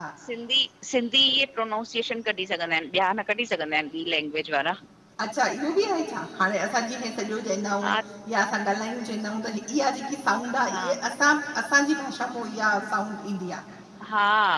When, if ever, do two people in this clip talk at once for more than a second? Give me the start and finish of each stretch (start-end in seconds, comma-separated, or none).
none